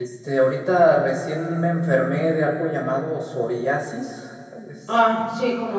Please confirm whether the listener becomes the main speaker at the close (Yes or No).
Yes